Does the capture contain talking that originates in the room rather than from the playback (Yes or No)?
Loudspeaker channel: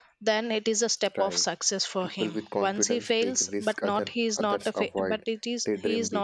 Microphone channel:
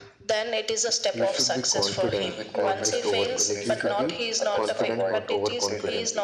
Yes